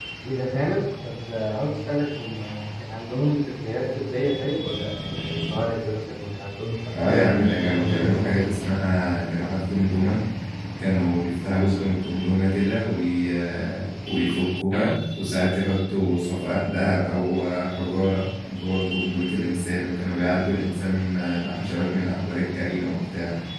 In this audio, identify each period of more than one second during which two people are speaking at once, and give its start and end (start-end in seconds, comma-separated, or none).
7.0-8.5